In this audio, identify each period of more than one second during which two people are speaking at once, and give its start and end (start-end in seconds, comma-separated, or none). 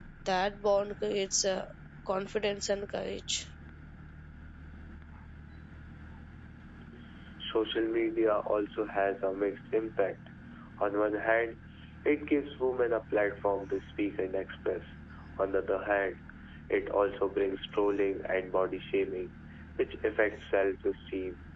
none